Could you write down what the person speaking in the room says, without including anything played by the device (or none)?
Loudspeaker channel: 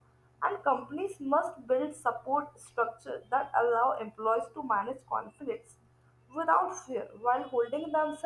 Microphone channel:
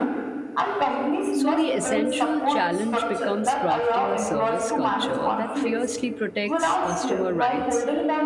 So, the essential challenge becomes crafting a service culture that fiercely protects customer rights